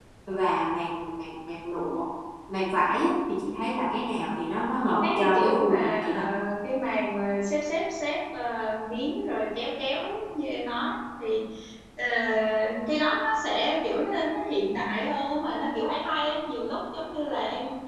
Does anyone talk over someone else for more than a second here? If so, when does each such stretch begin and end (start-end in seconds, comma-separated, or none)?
4.8-6.2